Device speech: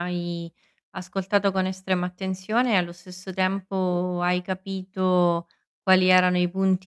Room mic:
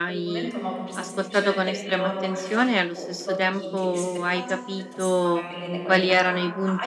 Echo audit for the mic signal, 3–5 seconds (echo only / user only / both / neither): both